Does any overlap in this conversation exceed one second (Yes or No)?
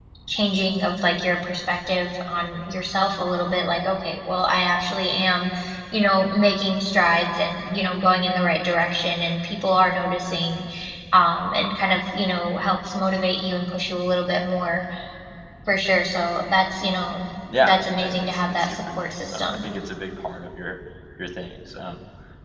Yes